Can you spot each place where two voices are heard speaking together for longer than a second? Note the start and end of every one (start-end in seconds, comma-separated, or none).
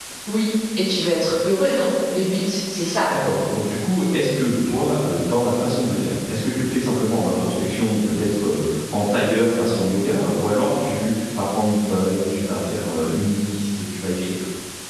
none